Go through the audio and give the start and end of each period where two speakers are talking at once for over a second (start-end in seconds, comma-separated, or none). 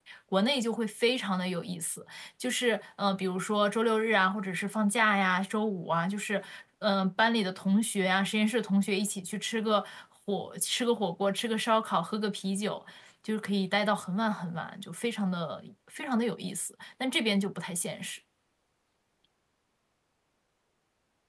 none